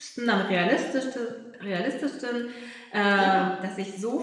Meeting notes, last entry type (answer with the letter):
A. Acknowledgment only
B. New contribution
A